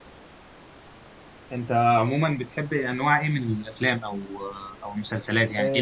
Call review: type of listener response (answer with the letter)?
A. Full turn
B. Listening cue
A